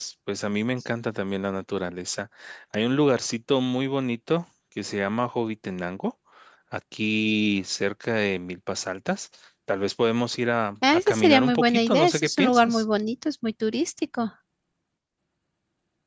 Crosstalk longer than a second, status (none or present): present